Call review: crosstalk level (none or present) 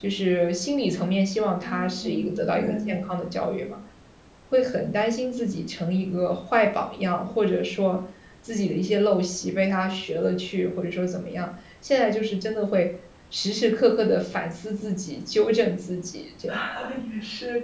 present